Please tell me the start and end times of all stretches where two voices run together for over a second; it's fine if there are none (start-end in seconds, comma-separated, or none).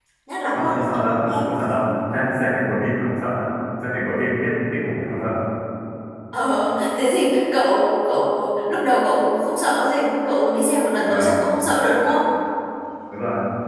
0.5-1.9